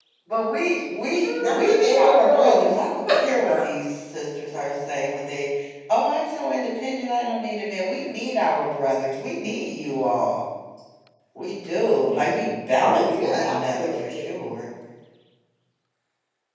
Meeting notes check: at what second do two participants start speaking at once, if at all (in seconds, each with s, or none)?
1.4 s